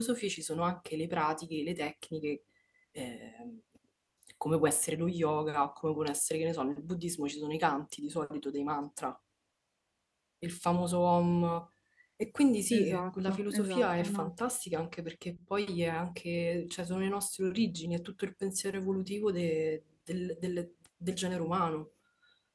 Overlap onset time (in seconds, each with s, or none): 12.7 s